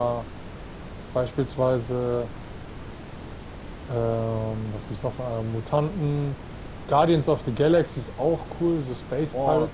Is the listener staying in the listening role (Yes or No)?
No